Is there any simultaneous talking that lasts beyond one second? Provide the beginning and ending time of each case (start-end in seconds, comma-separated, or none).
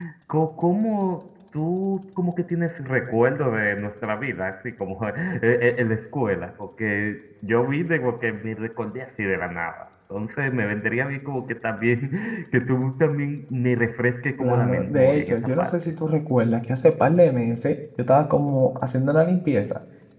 14.4-15.7